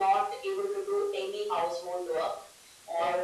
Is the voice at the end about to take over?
No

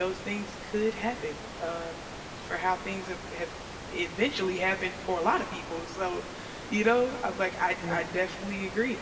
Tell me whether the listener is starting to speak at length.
No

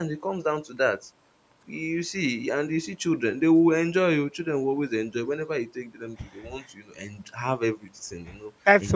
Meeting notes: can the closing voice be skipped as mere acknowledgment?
No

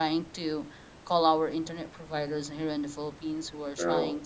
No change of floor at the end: Yes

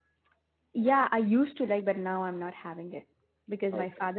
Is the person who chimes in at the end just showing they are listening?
Yes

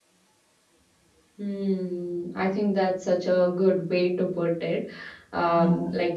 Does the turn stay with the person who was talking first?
Yes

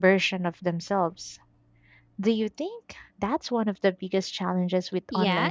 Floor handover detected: Yes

